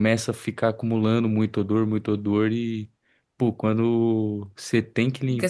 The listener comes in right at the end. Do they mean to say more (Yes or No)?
Yes